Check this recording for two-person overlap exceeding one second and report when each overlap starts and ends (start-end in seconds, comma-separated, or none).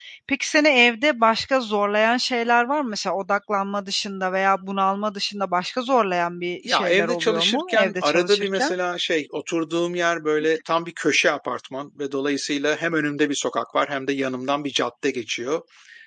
6.7-8.7